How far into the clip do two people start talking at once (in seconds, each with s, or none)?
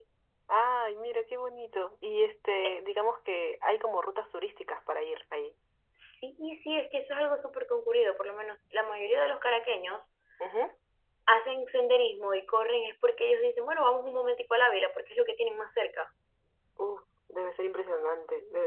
none